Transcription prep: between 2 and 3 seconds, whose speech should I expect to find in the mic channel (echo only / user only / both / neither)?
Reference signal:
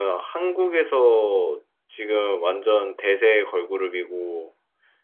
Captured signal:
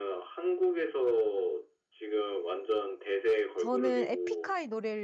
echo only